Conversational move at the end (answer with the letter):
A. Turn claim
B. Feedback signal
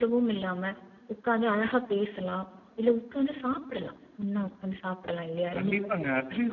A